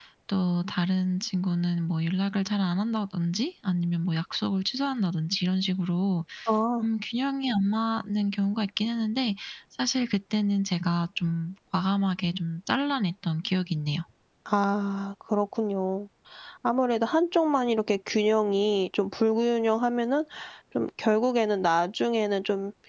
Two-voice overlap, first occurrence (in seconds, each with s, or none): none